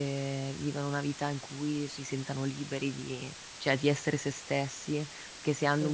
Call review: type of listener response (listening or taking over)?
listening